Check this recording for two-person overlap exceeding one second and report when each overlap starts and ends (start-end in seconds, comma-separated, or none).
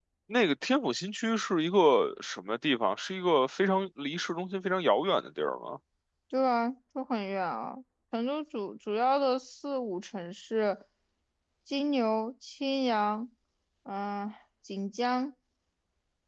none